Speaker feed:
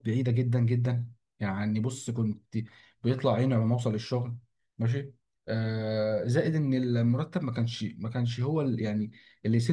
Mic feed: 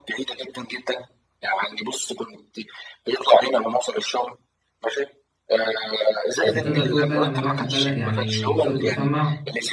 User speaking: Yes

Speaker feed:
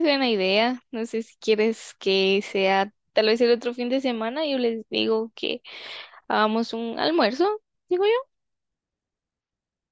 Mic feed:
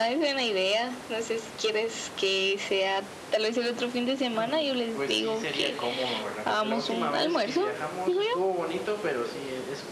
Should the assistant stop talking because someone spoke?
Yes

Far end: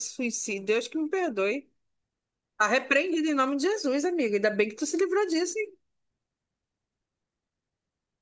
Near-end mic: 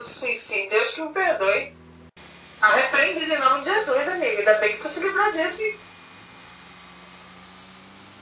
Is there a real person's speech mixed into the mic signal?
No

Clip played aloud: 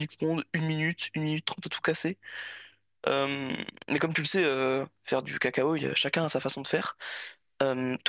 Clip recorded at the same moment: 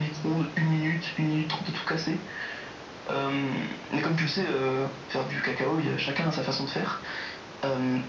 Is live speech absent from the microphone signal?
Yes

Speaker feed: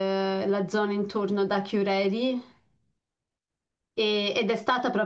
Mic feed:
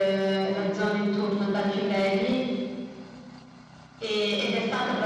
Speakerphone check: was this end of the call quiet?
Yes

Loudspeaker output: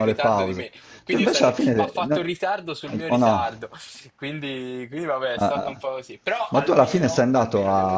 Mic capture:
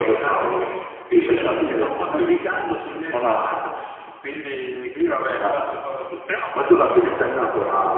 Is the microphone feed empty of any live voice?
Yes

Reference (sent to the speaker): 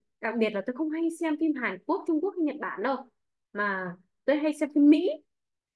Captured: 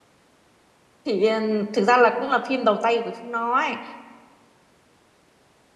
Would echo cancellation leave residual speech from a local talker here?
Yes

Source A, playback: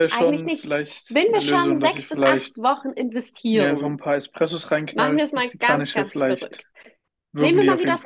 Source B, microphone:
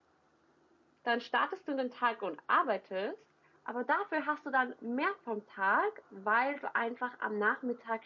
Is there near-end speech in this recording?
Yes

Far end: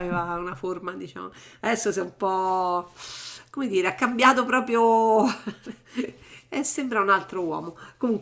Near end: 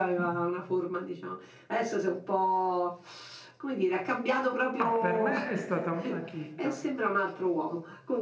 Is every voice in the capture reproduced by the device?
No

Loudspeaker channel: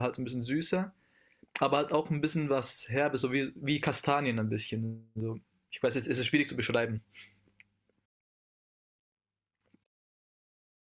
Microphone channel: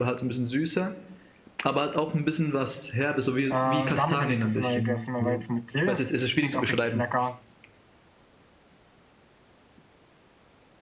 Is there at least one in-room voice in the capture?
Yes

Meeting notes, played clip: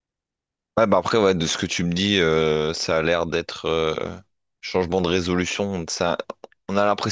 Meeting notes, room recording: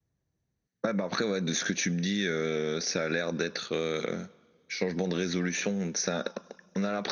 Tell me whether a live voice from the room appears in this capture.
No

